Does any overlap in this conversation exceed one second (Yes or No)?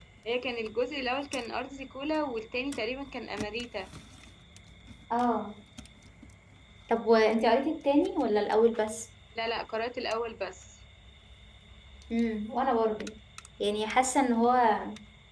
No